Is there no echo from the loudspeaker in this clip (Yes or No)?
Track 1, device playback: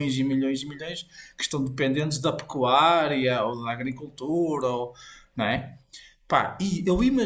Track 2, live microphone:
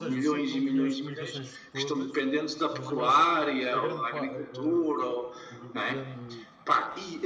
No